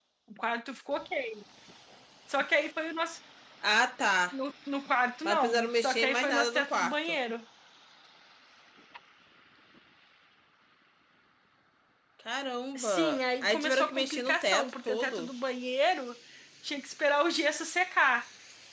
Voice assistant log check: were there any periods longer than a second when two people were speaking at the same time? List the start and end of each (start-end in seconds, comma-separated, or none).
5.2-7.0, 12.8-15.3